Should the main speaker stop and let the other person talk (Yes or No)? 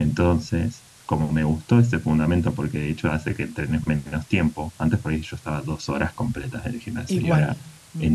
No